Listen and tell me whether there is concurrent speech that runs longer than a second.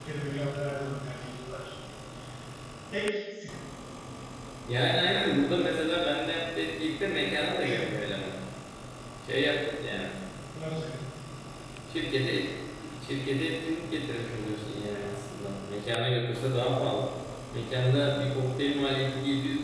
No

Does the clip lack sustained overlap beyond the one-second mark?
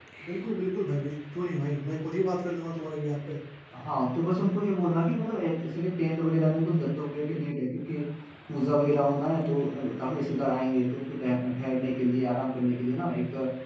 Yes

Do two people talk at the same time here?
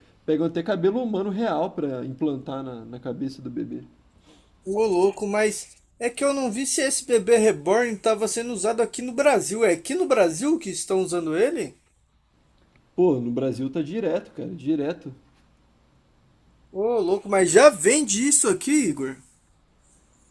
No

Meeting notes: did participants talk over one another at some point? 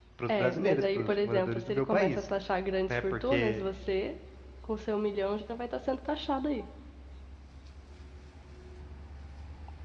Yes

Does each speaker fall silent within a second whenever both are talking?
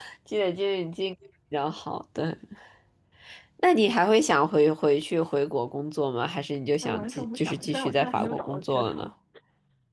No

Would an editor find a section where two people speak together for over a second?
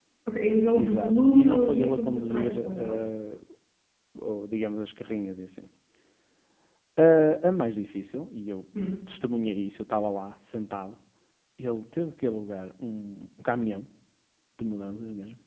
Yes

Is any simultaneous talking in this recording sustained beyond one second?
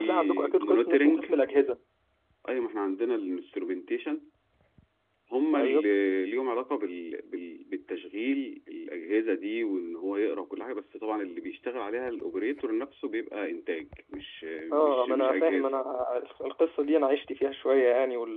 Yes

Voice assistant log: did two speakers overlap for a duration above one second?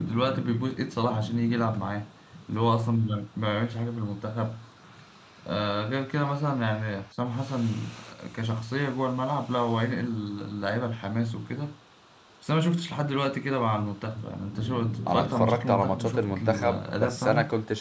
Yes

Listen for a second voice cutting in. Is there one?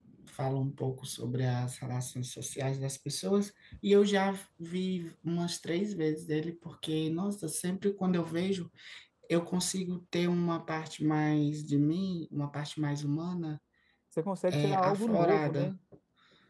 Yes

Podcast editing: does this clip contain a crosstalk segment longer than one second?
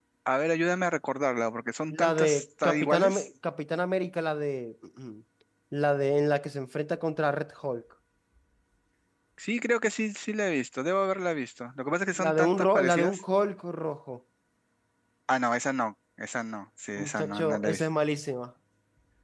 Yes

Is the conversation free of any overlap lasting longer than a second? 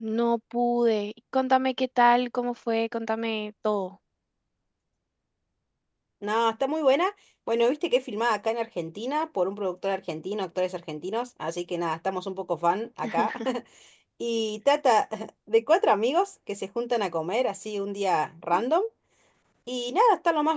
Yes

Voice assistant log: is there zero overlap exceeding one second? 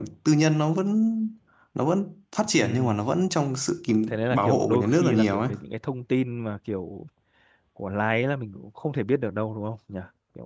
No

